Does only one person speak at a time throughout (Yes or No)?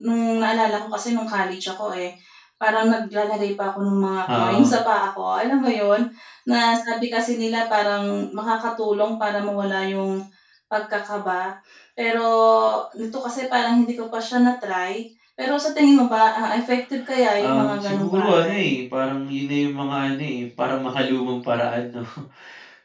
No